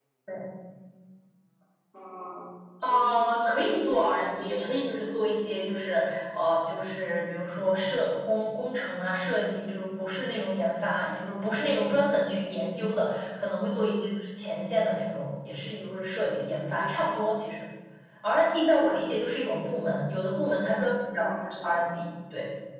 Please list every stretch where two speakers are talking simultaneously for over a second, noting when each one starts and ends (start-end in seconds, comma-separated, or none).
2.8-5.1